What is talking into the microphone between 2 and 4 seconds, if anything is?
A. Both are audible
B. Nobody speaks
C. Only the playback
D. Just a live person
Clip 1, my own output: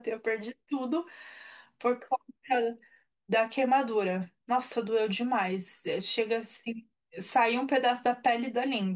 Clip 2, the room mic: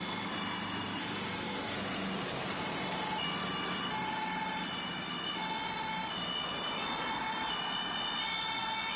B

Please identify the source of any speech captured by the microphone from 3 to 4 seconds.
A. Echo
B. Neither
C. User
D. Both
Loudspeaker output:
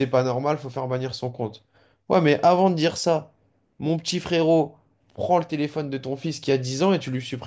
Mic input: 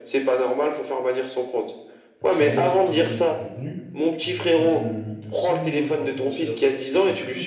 D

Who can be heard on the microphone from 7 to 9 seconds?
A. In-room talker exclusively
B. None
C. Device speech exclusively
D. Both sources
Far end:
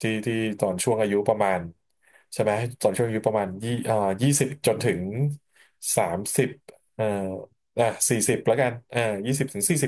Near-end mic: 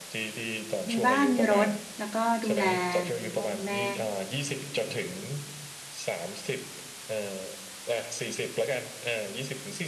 C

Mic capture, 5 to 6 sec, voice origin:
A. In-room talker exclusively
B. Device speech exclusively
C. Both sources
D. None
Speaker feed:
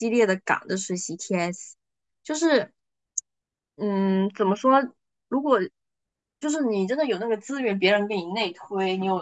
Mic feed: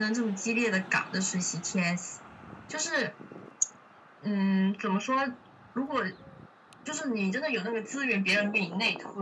B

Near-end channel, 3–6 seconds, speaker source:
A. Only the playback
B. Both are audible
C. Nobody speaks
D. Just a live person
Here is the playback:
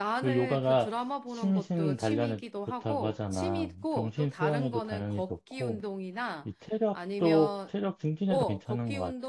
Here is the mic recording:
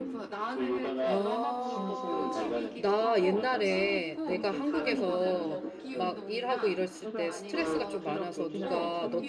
B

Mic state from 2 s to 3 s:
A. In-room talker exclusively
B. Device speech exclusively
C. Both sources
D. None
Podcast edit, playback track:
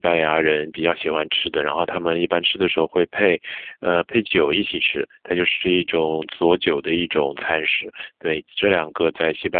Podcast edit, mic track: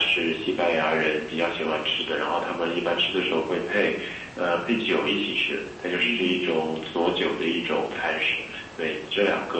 B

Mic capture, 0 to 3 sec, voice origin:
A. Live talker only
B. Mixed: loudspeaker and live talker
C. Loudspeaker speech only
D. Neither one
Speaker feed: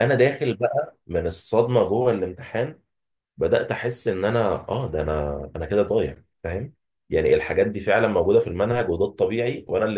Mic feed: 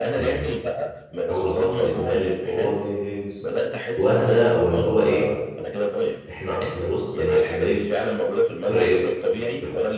B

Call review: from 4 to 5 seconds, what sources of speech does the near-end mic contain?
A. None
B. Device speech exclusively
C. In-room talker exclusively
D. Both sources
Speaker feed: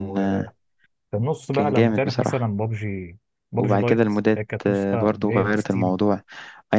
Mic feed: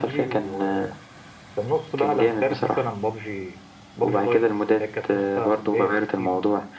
B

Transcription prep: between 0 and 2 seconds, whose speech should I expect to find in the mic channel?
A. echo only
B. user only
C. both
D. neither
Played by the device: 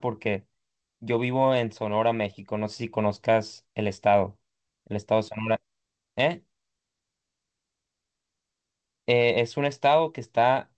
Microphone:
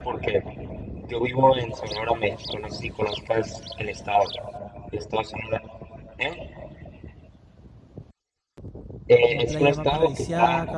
A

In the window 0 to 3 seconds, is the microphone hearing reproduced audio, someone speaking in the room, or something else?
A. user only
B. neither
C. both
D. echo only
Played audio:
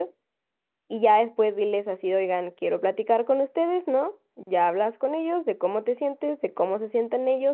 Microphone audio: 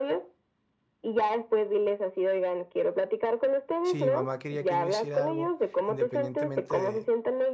D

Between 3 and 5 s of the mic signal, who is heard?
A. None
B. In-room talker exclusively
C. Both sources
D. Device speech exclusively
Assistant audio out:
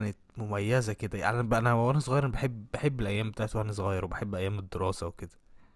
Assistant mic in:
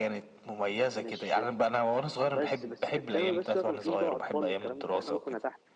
C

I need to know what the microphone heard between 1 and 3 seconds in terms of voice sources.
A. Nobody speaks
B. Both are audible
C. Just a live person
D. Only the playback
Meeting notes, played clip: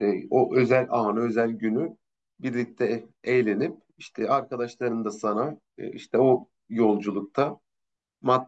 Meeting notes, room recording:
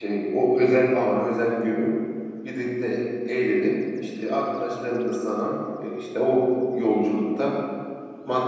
D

